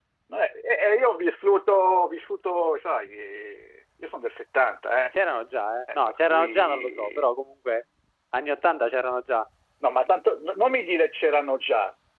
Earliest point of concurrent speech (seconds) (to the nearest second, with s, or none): 6 s